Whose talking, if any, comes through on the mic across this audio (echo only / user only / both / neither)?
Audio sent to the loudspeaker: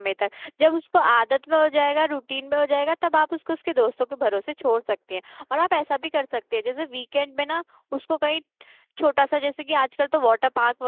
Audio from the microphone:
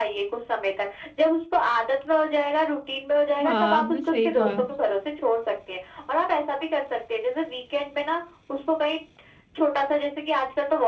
both